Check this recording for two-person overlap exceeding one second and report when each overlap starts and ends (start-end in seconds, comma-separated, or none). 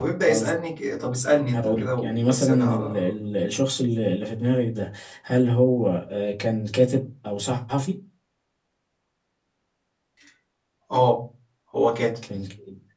1.5-3.0